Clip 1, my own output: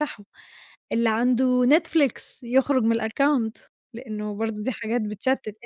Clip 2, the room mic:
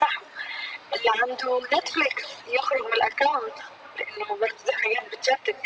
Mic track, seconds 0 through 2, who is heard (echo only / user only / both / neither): echo only